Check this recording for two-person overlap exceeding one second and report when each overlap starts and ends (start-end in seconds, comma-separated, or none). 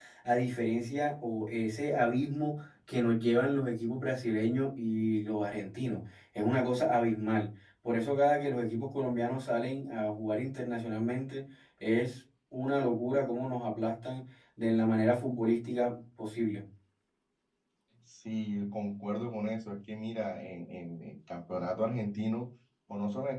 none